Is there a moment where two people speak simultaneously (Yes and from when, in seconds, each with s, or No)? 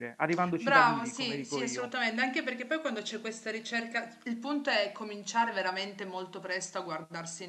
Yes, from 0.6 s